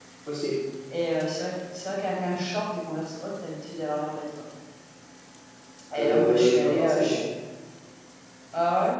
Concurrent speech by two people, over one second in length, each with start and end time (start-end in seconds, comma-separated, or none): 6.0-7.2